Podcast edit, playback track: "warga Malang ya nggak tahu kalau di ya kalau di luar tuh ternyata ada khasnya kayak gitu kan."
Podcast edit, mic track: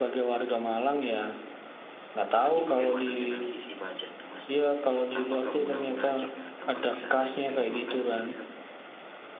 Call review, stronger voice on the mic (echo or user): echo